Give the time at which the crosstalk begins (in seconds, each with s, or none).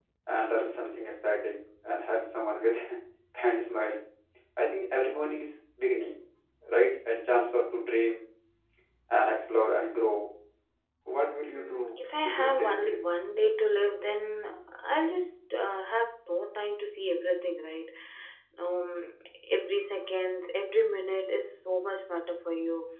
11.6 s